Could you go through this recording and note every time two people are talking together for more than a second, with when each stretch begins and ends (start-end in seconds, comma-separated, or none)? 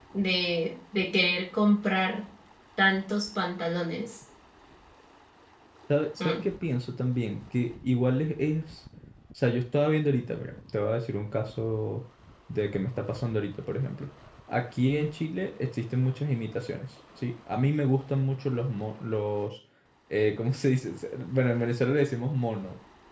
none